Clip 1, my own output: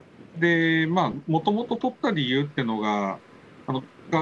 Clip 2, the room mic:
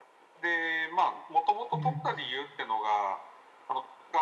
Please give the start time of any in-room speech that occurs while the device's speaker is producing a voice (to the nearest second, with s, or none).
2 s